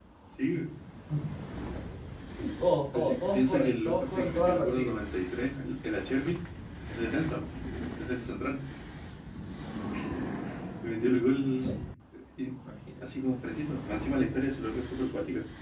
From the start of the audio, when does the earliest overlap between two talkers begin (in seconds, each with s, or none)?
2.9 s